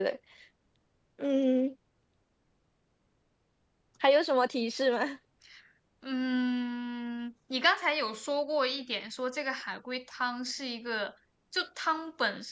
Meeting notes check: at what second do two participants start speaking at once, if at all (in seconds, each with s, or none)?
none